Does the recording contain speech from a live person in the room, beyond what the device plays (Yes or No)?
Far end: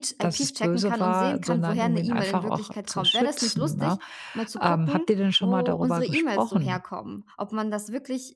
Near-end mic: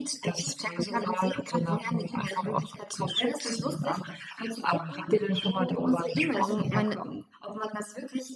Yes